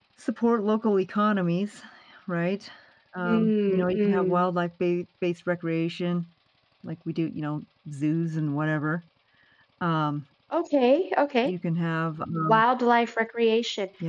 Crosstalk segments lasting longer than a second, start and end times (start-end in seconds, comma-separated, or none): 3.2-4.5